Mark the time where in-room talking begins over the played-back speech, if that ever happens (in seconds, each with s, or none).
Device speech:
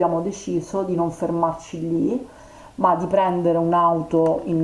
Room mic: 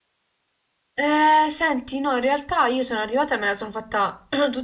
1.0 s